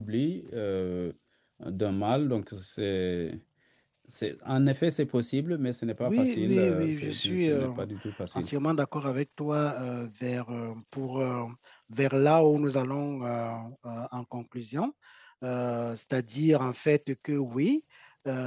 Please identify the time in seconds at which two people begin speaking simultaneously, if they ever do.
6 s

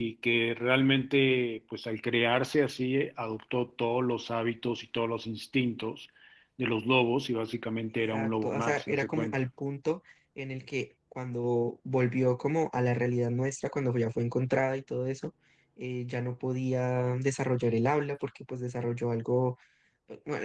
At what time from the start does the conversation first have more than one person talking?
8 s

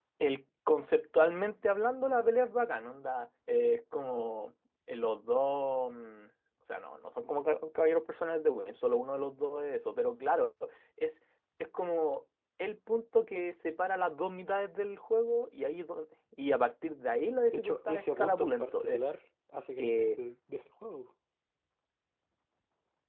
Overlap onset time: 18 s

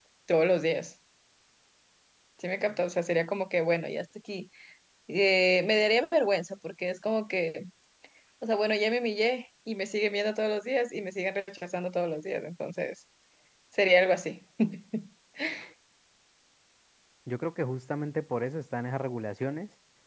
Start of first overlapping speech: none

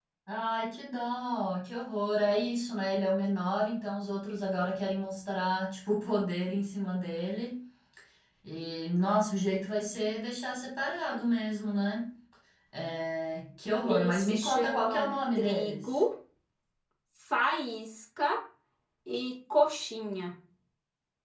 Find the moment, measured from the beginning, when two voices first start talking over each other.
14 s

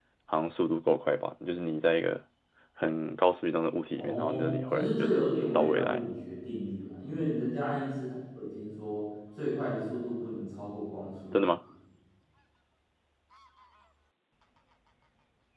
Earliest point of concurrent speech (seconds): 4 s

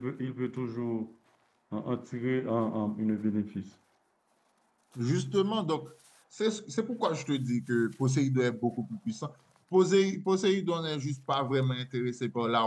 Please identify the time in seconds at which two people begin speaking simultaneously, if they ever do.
none

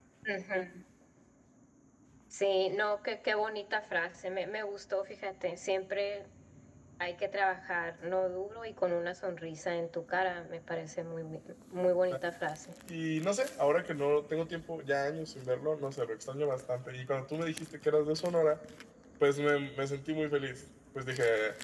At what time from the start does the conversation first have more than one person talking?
none

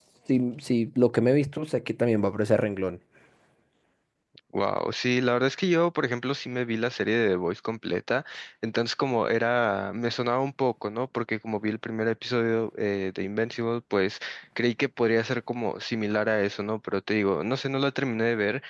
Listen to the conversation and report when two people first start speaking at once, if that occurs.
none

